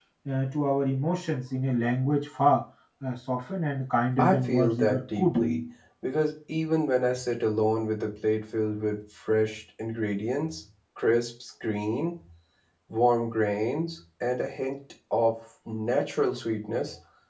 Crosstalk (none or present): present